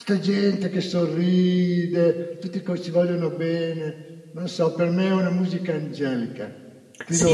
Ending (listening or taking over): taking over